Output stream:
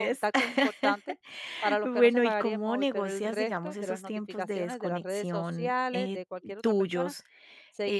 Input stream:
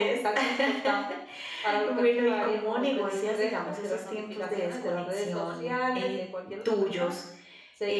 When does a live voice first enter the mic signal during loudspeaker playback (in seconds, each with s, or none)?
none